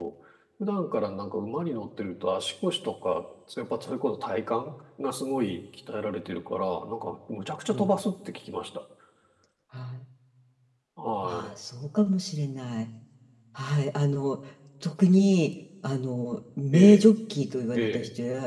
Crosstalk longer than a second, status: none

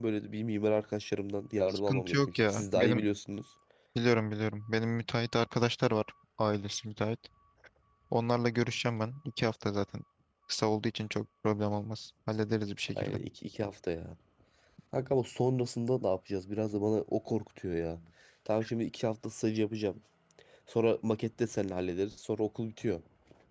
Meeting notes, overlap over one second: present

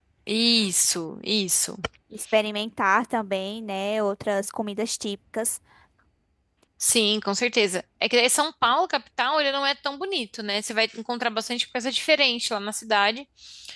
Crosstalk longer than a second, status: none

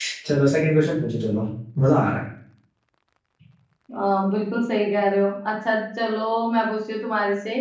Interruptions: none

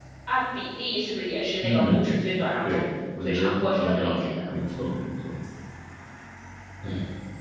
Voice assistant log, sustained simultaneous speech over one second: present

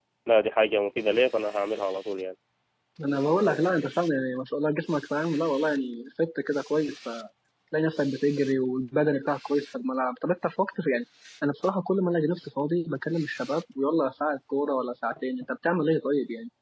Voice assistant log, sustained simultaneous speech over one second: none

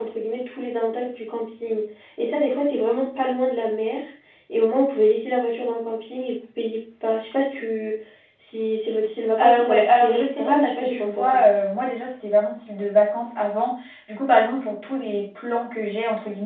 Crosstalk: present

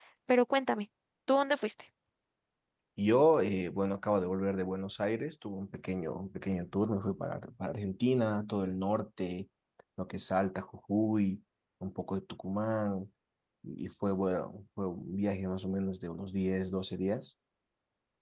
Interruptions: none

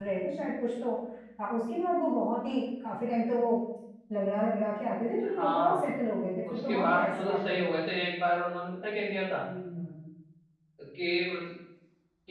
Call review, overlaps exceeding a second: present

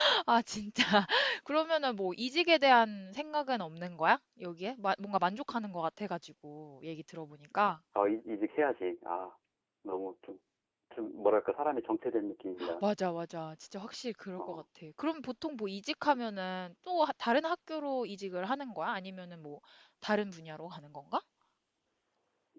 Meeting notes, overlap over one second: none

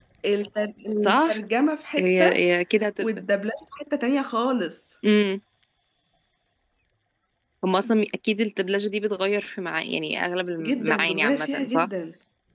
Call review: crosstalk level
present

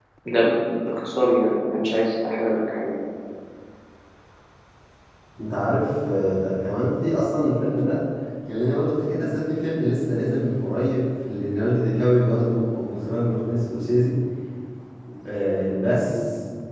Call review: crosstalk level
none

